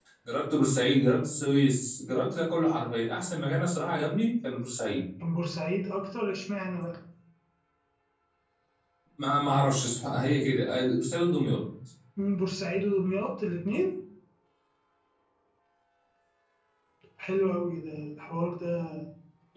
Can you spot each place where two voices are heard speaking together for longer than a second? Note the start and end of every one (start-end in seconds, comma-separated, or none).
none